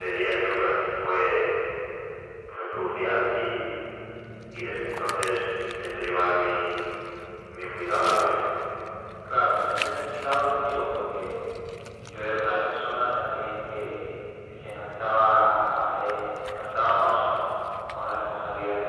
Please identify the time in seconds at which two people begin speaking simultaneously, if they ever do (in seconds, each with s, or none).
none